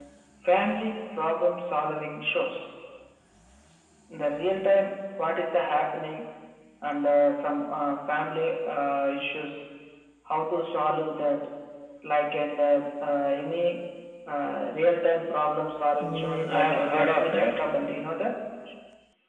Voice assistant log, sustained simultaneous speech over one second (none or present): present